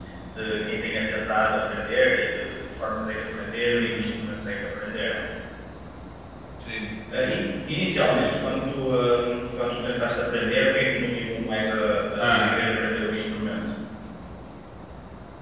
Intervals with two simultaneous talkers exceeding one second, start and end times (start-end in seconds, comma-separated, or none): none